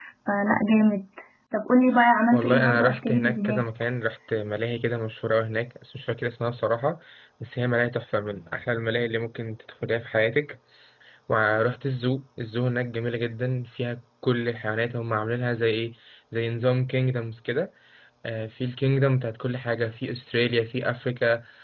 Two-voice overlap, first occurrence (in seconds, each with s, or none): 2.3 s